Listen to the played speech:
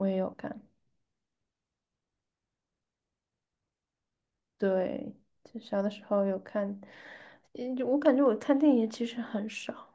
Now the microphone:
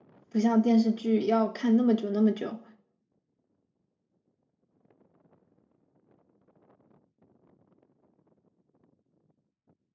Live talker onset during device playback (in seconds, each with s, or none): 0.3 s